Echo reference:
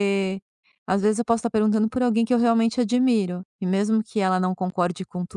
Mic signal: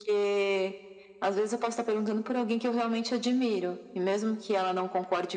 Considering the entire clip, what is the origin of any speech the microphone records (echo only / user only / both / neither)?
echo only